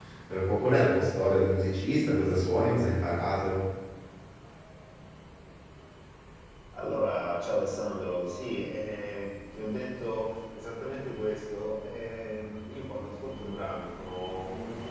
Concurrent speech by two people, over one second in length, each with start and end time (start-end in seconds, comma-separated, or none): none